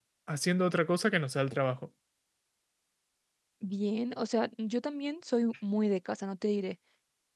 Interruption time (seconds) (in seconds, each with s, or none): none